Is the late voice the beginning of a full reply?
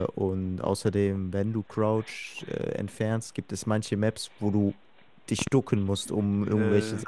No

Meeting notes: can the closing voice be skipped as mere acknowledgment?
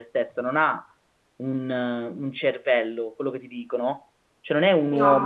Yes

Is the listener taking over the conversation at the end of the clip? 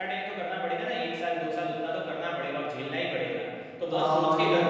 Yes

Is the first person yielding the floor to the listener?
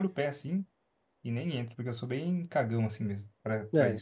Yes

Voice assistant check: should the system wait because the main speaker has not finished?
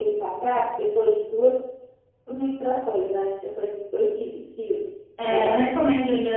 No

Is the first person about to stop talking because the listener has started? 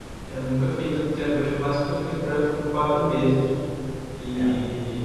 No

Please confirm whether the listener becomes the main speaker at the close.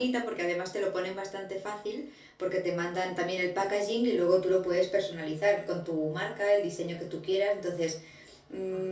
No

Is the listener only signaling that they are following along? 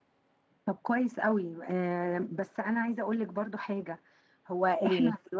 Yes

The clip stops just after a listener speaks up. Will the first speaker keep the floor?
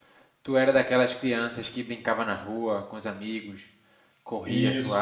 No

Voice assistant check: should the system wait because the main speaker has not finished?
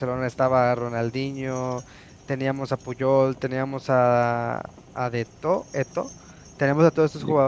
Yes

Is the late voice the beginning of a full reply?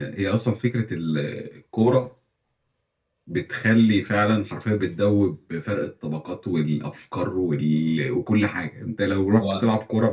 No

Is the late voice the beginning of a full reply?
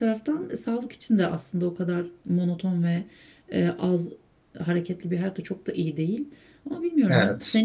No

